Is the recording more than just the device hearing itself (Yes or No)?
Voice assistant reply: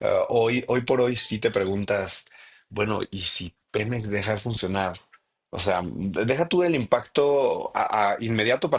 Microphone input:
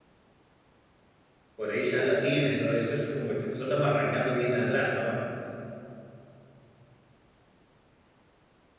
Yes